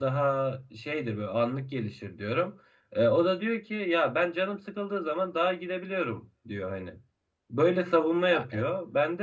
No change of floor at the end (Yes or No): Yes